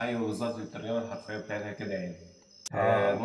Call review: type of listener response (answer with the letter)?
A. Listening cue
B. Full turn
A